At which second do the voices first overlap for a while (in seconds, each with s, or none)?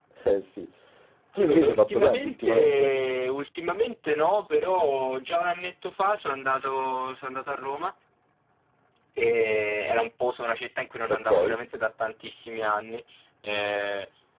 1.4 s